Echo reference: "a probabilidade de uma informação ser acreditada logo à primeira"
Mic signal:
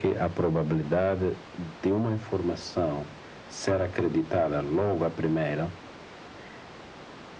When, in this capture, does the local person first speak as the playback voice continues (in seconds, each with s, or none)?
none